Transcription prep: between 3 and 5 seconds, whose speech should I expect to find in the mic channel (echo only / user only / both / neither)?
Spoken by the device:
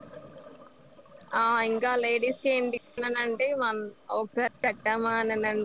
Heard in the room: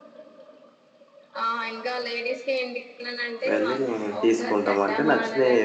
both